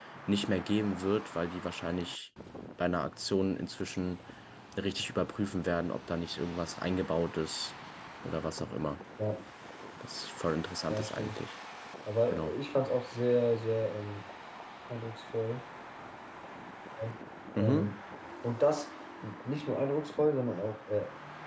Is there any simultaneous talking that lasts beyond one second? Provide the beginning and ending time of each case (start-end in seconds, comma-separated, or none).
none